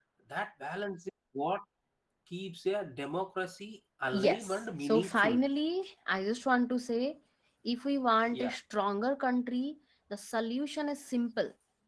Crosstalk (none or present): present